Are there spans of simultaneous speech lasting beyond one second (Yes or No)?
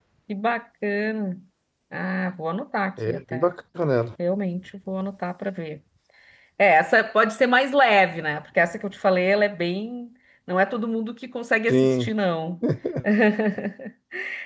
No